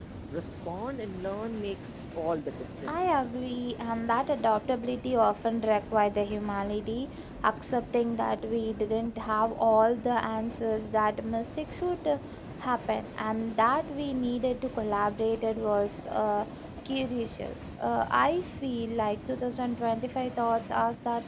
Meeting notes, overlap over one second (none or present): none